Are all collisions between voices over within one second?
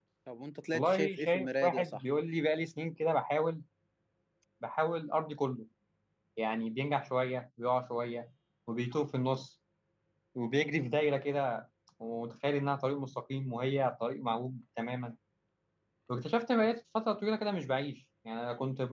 No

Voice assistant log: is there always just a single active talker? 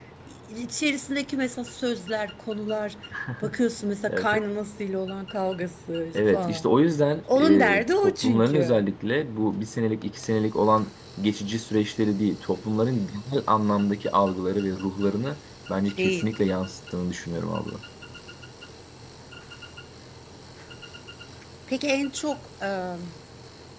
No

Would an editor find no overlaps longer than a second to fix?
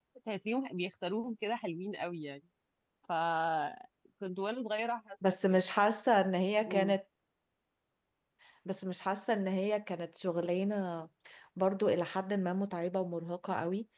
Yes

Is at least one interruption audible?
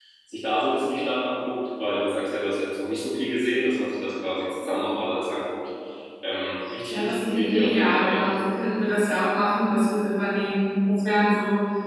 Yes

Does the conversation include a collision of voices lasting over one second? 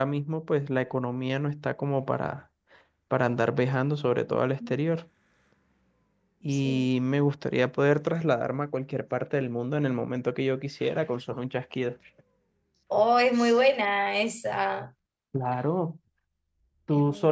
No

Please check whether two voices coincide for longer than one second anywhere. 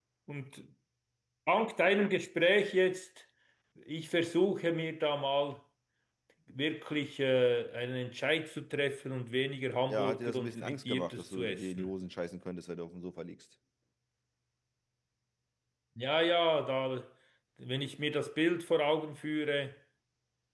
Yes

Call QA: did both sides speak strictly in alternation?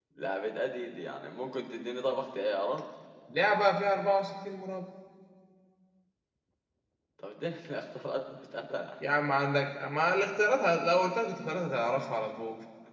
Yes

